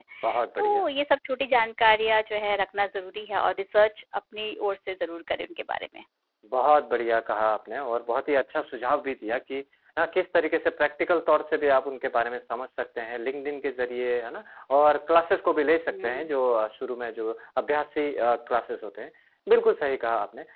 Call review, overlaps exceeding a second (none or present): none